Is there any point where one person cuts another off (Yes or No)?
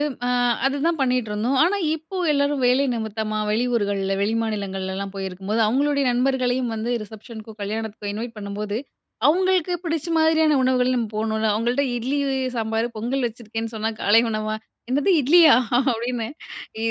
No